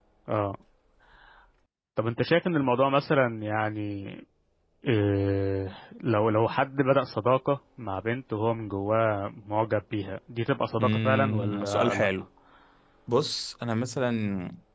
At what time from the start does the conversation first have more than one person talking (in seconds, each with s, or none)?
10.8 s